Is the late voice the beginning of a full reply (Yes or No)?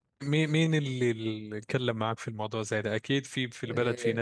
Yes